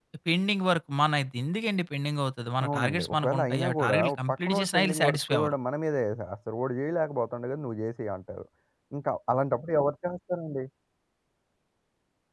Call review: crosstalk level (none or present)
present